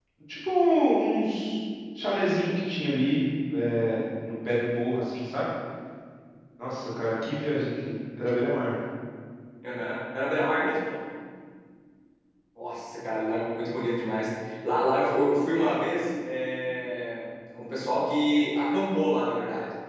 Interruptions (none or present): none